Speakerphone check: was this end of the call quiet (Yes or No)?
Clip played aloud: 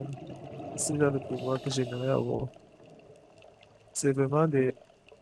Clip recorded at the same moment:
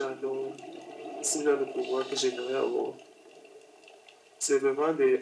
Yes